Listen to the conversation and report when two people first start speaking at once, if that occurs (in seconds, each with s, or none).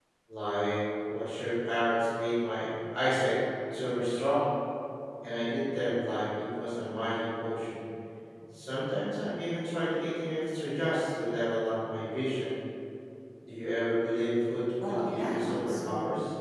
14.8 s